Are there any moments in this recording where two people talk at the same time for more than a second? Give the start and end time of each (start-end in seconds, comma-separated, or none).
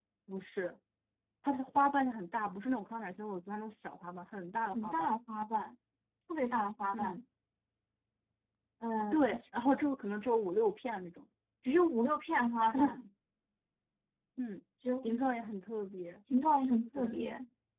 none